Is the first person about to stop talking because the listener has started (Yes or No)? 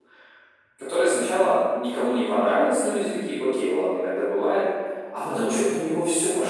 No